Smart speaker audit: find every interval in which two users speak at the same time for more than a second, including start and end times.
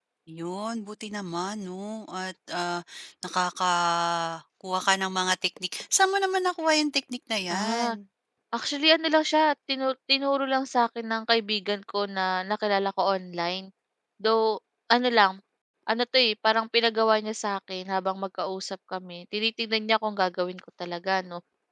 none

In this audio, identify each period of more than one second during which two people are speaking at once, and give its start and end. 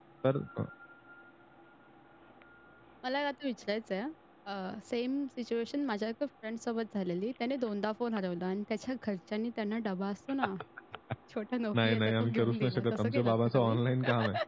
11.8-13.8

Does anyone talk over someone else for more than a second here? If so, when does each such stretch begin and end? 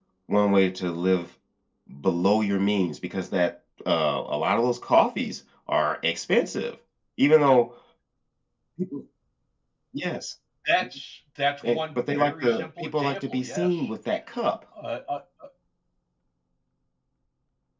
11.6-13.8

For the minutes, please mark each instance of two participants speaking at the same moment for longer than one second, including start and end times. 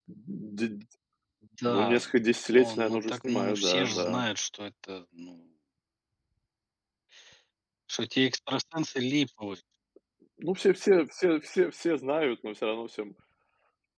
2.6-4.2

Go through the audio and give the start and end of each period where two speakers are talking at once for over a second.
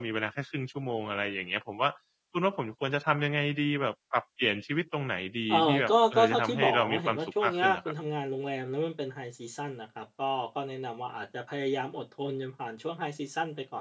5.5-7.9

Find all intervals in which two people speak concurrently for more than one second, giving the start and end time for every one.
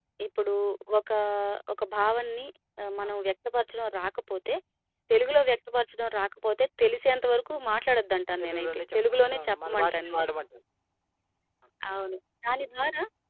8.4-10.2

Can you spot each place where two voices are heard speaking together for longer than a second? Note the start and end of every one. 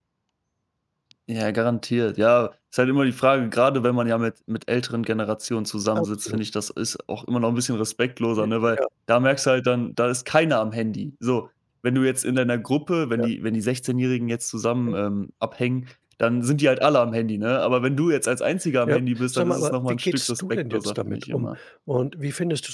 18.9-21.6

